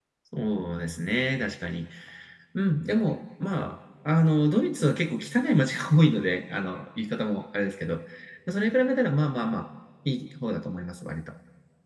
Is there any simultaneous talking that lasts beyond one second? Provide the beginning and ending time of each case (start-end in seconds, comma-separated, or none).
none